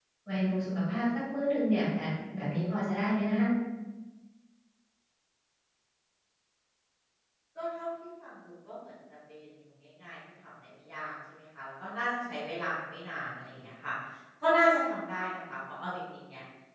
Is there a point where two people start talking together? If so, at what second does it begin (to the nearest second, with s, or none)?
none